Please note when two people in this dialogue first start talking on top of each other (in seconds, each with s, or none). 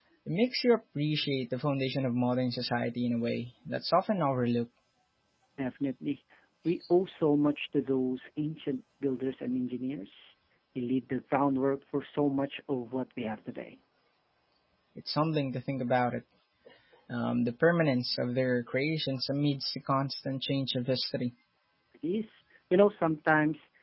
none